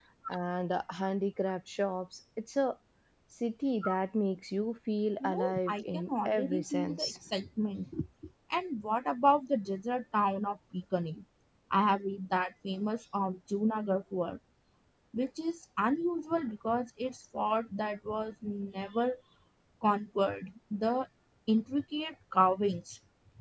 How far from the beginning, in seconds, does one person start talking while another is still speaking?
5.2 s

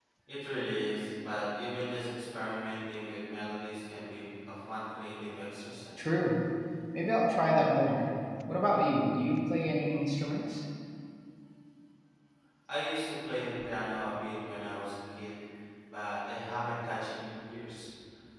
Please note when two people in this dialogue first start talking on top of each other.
none

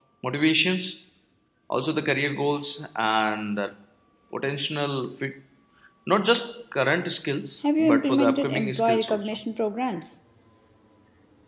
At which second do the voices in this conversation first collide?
7.9 s

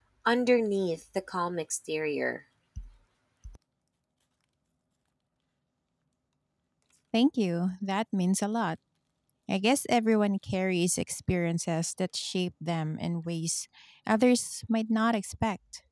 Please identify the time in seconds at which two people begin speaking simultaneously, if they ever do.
none

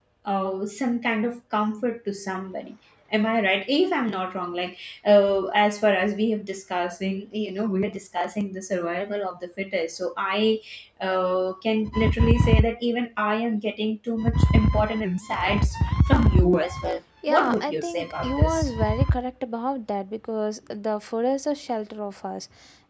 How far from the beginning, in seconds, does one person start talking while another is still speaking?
17.2 s

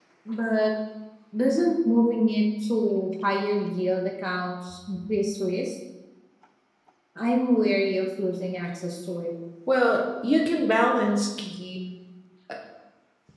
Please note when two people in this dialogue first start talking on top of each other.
none

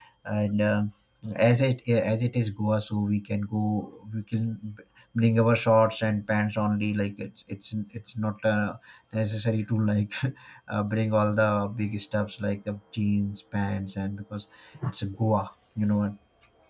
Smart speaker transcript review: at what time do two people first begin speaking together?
none

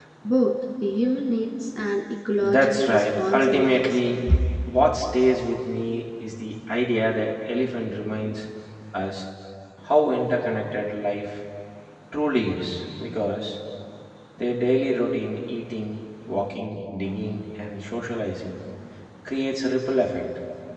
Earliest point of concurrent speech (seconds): 2.4 s

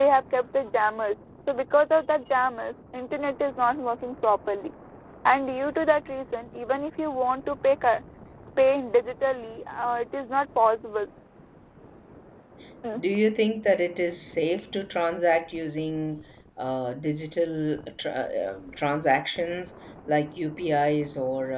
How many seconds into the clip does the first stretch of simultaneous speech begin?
none

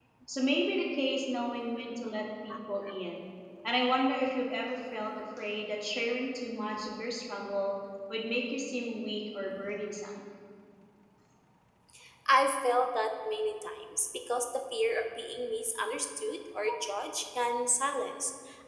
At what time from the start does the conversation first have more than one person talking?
none

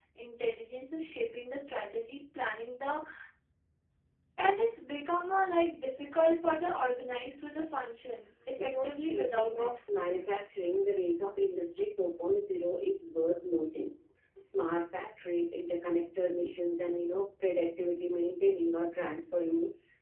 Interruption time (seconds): 8.6 s

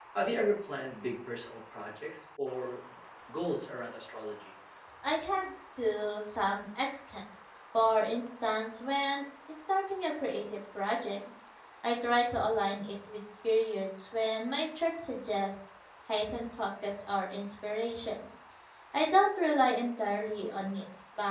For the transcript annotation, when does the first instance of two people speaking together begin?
none

